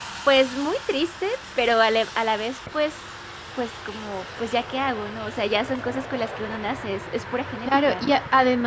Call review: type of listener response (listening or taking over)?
taking over